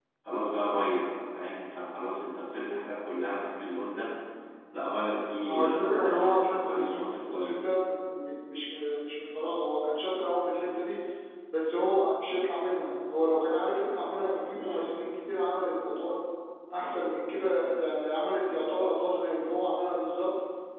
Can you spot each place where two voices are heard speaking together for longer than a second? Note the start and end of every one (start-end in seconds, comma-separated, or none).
5.4-7.8